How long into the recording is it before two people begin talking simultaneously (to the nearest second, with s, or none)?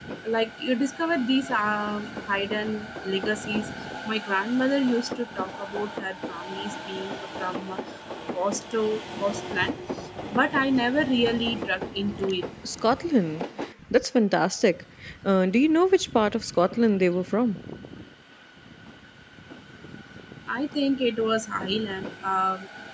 none